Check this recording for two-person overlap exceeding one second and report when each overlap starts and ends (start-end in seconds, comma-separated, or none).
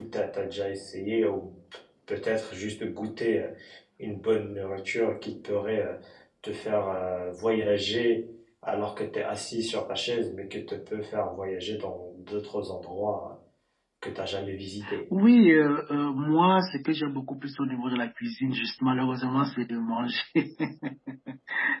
none